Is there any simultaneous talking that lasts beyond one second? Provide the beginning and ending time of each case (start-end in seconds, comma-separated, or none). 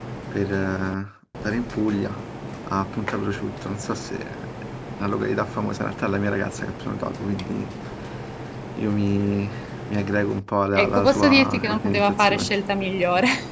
10.8-12.5